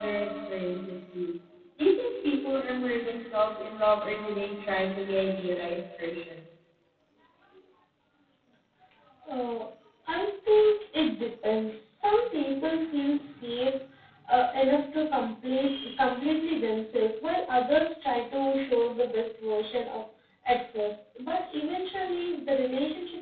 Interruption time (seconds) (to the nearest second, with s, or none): none